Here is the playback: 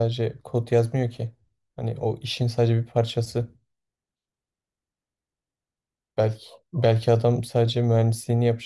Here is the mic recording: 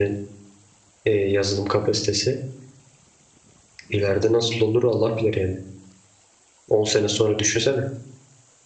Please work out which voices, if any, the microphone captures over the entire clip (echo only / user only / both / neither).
user only